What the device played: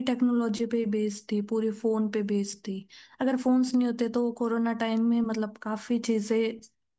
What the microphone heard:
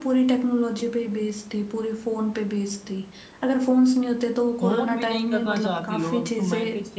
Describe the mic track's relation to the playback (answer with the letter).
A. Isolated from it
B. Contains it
B